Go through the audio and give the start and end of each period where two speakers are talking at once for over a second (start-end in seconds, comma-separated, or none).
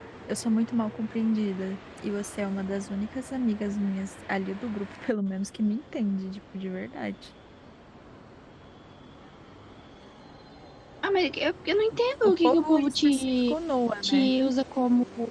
12.2-13.5